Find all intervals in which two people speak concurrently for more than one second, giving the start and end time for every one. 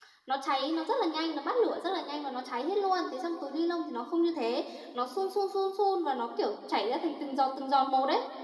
none

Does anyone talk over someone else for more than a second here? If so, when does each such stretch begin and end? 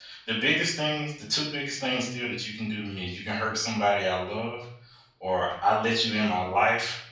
none

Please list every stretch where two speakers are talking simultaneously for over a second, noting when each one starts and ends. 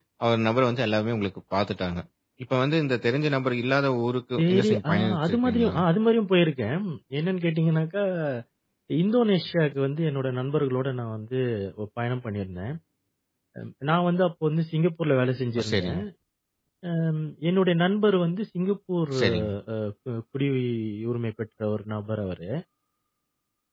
4.4-5.8

